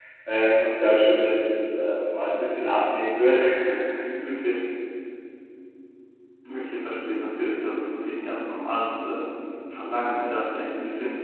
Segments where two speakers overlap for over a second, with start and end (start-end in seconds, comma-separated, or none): none